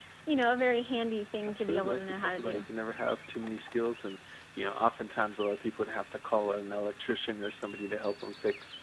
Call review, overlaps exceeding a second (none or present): present